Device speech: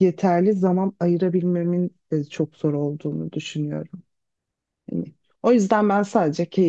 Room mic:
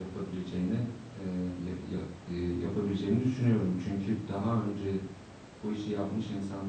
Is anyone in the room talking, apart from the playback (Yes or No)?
Yes